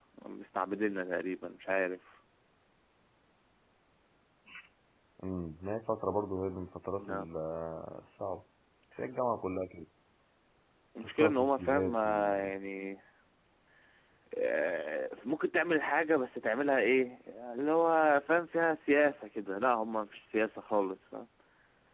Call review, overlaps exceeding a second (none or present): present